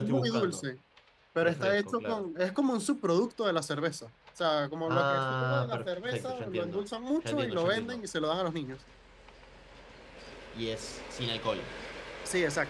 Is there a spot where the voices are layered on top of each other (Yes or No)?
Yes